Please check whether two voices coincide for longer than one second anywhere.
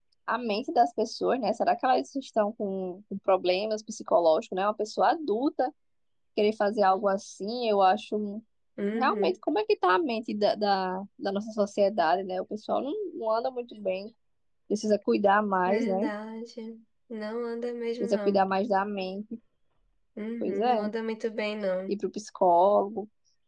No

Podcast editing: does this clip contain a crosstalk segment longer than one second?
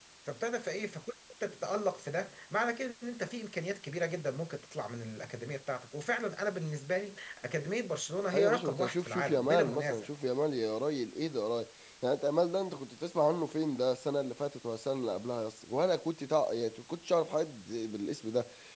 Yes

